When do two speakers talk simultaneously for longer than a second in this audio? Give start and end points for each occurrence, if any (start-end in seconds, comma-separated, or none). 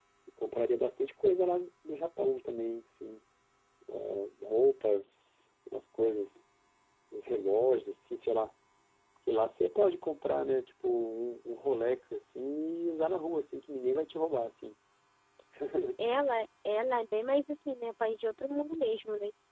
none